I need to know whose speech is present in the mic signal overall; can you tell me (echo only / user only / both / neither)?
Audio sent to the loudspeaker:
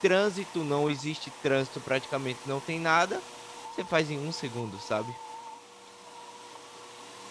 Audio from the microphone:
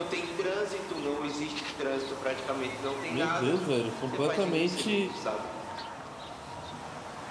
both